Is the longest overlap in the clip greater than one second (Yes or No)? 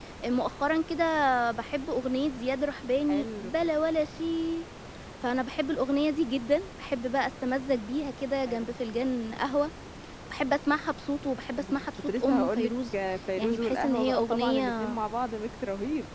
Yes